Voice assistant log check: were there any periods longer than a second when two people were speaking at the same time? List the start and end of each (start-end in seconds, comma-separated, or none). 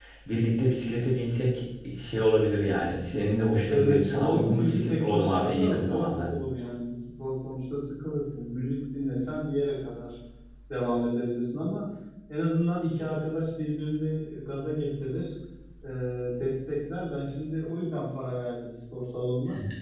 3.7-6.3